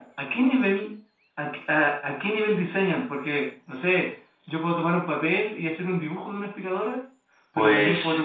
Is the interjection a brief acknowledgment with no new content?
Yes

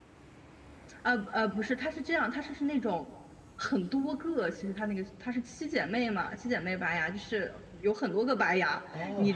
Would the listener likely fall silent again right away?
Yes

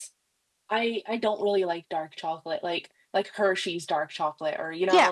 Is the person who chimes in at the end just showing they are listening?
No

